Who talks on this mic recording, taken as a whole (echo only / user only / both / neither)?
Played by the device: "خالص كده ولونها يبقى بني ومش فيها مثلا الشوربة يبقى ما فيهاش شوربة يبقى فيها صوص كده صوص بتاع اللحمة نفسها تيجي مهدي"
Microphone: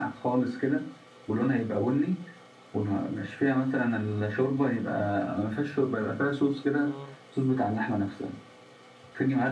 both